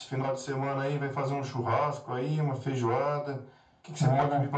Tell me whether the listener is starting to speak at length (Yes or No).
No